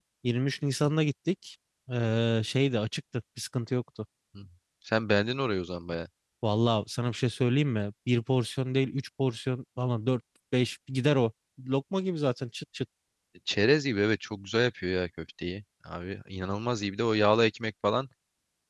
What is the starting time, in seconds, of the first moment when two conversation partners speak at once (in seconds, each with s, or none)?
none